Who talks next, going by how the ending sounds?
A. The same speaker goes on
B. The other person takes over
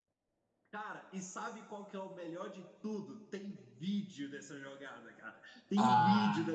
A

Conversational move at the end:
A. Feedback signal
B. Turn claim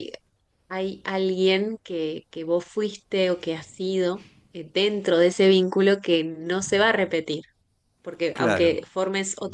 A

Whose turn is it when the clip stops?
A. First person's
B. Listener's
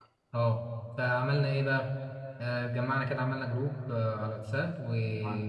A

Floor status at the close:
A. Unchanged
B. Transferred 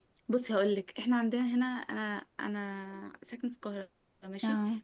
A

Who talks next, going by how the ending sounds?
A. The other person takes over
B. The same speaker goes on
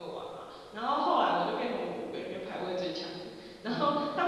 B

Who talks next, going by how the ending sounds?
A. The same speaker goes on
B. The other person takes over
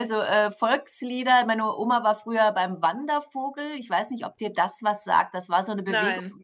A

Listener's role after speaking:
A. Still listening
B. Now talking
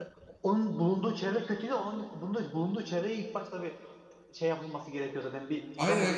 B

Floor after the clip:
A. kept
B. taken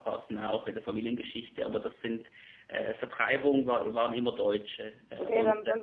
B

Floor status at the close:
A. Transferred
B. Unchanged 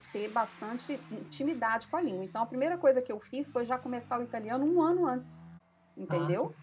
A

